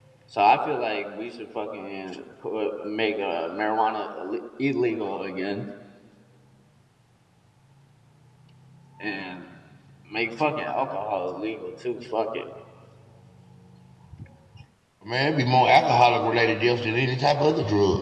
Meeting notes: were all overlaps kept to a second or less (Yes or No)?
Yes